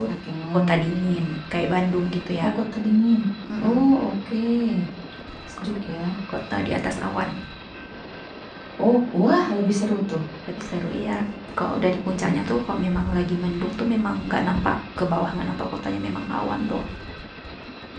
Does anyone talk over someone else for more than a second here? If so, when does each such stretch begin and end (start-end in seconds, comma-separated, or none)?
none